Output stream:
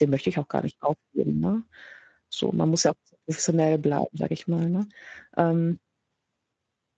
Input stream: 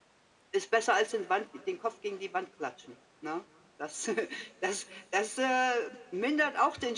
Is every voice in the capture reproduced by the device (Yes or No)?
No